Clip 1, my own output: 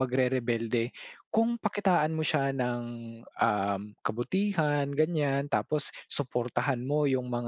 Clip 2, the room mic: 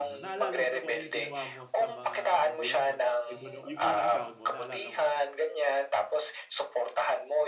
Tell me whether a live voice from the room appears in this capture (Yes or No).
Yes